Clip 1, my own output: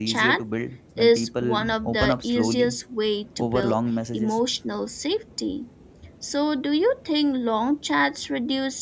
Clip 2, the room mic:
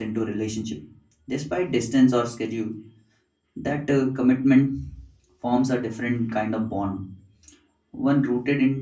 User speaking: Yes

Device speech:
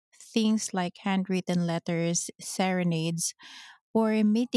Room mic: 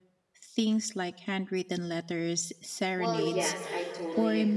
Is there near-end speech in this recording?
Yes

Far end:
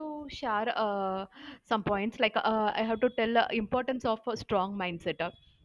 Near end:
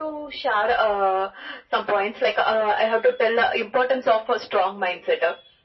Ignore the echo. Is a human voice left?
No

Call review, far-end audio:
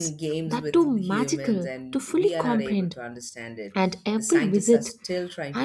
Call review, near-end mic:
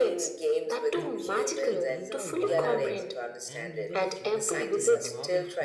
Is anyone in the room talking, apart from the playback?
Yes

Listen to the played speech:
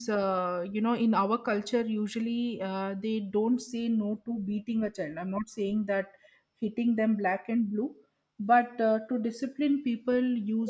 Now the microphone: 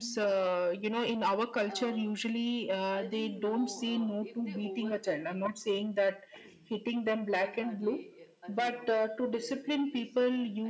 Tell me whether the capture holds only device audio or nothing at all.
No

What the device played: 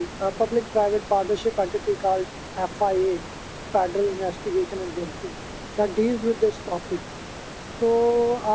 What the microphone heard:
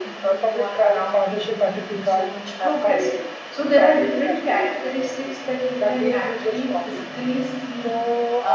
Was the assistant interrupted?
Yes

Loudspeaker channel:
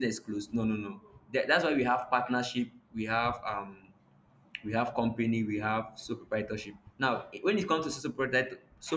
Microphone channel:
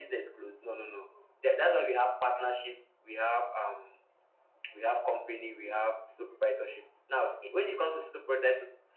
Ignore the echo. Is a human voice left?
No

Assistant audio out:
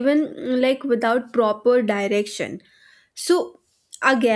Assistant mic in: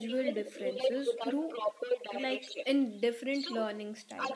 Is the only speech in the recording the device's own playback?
No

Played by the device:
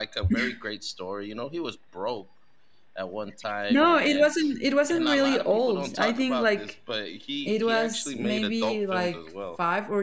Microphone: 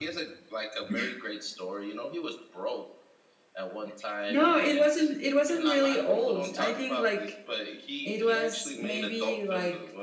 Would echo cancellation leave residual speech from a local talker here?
No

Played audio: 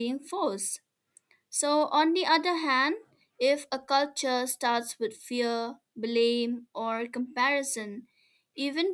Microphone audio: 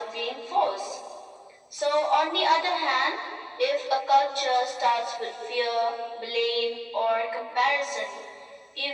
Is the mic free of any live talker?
Yes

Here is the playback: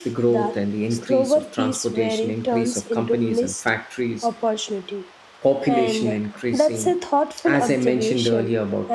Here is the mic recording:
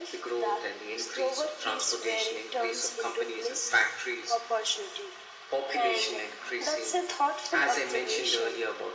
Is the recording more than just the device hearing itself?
No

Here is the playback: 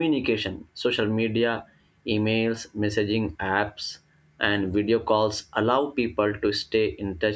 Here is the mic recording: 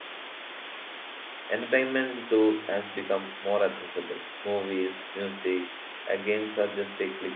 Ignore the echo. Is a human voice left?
Yes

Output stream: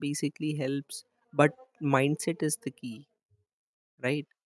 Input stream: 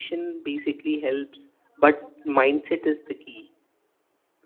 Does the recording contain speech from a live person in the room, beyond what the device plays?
No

